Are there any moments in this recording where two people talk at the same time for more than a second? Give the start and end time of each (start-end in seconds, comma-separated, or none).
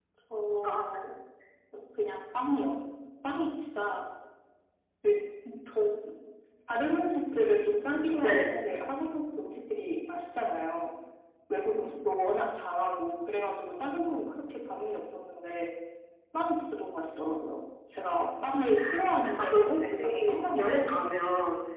19.4-21.0